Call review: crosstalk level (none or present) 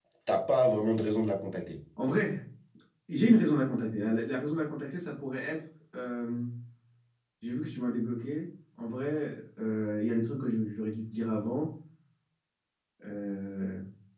none